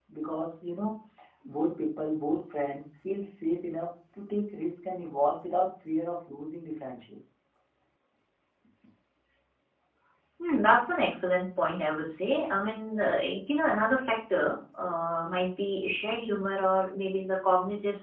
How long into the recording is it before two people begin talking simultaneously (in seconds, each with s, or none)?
none